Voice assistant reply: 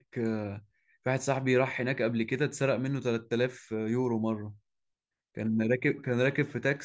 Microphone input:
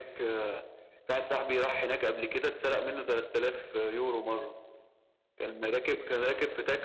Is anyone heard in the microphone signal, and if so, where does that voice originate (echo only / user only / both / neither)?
echo only